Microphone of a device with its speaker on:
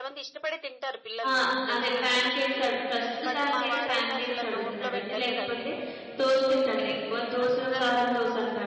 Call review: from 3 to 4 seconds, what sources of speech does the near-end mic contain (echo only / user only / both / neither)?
both